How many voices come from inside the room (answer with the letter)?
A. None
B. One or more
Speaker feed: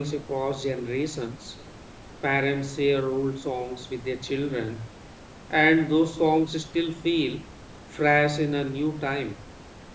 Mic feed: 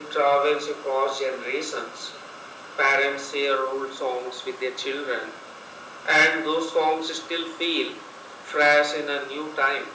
A